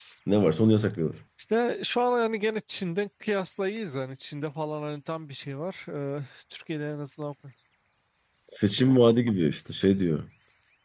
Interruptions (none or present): none